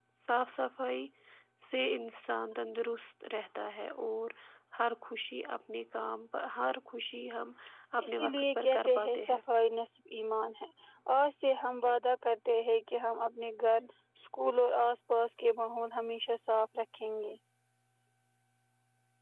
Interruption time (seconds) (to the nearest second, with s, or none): 8 s